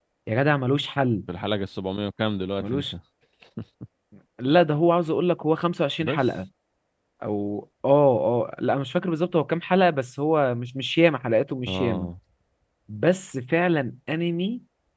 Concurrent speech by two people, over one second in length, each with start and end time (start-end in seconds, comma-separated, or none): none